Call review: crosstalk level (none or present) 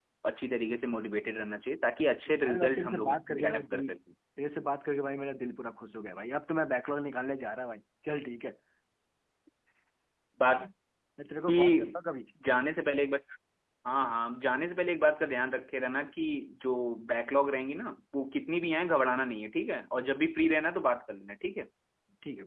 present